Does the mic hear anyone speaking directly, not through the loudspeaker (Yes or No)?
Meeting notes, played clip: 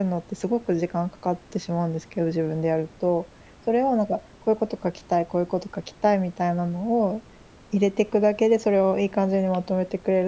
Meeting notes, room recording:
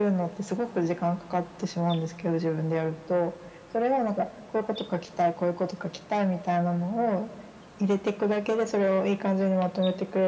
No